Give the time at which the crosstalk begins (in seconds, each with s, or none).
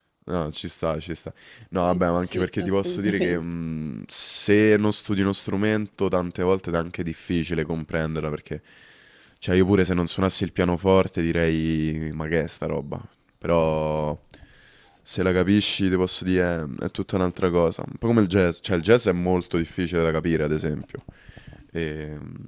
1.8 s